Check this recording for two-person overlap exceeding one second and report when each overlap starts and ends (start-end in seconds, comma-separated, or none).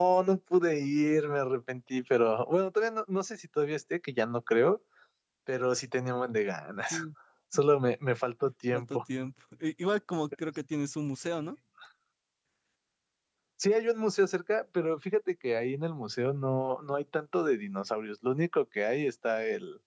none